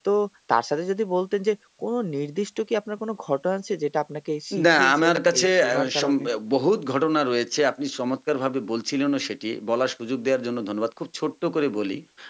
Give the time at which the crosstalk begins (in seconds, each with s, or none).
4.5 s